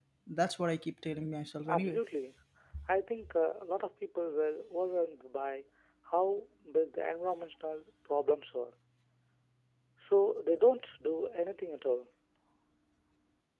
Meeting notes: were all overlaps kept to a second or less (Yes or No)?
Yes